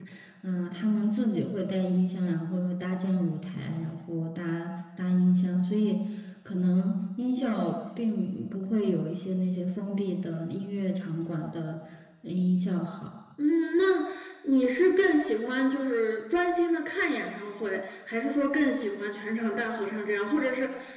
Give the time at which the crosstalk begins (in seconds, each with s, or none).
none